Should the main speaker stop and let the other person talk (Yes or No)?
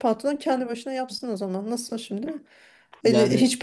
No